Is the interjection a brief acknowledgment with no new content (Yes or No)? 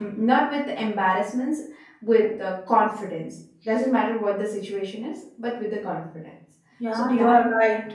No